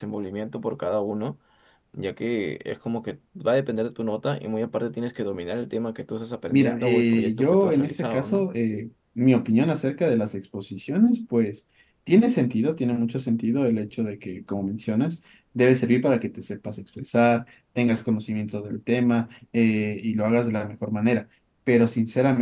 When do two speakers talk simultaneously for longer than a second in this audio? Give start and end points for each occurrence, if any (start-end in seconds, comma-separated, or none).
6.5-8.5